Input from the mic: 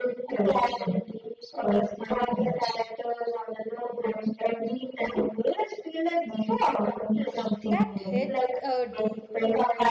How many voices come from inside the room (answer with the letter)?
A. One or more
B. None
A